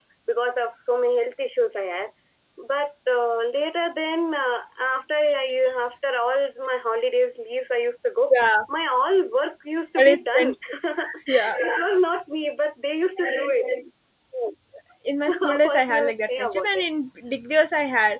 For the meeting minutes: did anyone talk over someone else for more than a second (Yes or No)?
Yes